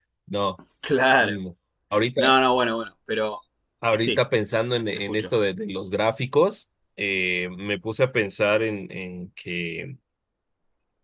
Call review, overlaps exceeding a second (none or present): none